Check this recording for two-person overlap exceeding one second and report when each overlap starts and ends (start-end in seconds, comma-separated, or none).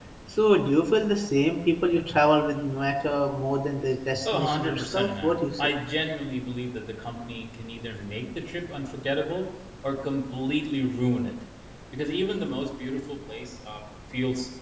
4.2-5.7